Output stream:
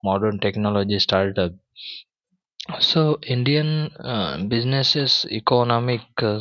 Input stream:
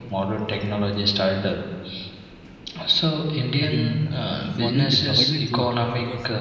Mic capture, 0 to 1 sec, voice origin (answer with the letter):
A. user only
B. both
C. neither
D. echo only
D